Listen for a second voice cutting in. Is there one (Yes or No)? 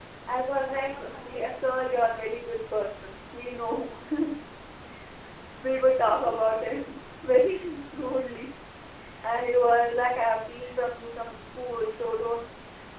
Yes